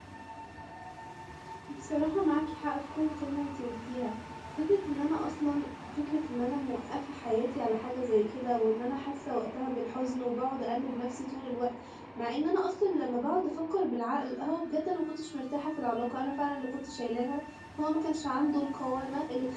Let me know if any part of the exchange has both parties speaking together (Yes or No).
No